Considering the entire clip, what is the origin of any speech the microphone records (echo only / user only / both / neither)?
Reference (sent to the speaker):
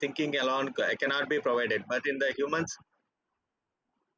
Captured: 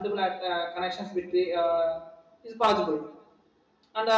user only